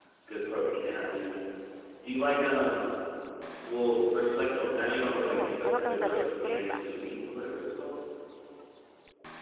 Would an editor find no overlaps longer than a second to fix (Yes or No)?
No